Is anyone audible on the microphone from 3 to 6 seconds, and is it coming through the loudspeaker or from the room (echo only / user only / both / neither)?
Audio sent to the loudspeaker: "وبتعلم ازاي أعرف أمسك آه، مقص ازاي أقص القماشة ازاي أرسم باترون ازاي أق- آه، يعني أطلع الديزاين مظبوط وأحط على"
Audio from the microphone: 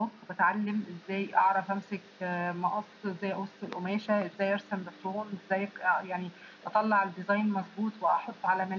echo only